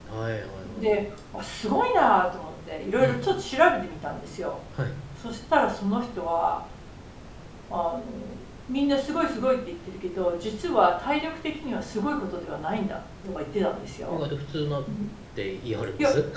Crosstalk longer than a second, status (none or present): none